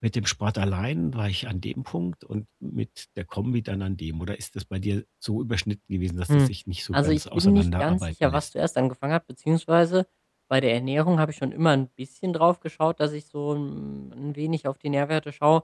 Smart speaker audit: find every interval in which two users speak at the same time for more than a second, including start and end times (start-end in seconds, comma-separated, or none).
6.9-8.4